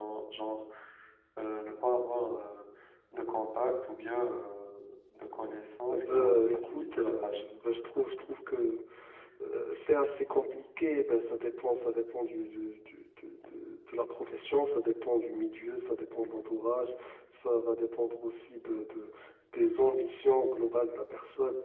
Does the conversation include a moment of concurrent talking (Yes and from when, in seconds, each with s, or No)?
Yes, from 5.9 s